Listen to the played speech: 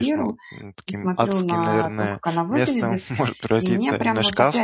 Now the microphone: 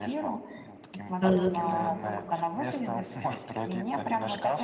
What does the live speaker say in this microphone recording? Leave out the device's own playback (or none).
Мгм.